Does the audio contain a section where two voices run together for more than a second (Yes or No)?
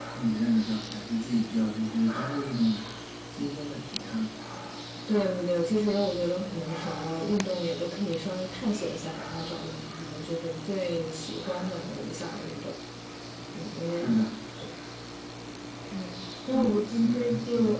Yes